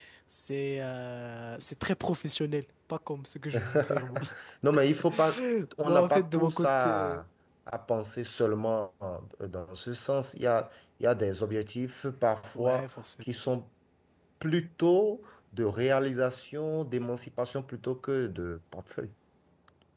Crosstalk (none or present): present